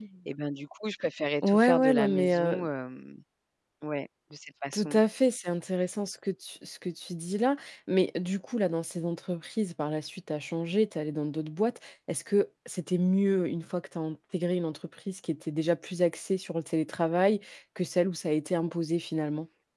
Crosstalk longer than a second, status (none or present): present